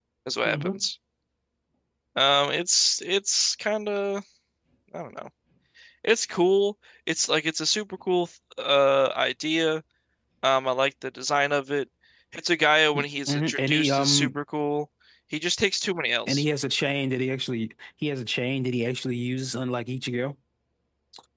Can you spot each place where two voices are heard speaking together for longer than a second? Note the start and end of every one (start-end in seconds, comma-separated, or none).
12.9-14.3